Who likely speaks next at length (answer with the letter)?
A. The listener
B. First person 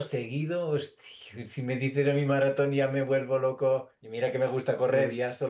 B